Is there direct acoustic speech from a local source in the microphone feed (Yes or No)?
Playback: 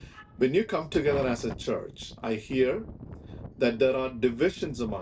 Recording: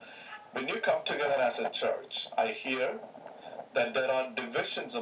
No